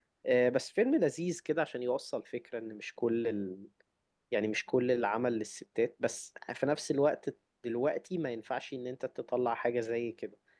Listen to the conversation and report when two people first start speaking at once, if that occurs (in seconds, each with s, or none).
none